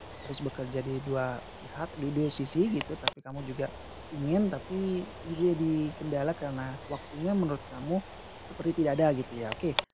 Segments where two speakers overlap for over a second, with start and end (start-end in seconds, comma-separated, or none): none